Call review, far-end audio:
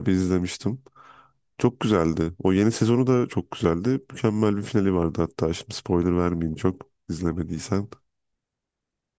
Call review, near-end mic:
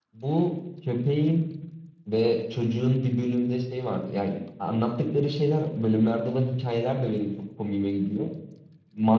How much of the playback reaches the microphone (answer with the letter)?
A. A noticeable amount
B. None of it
B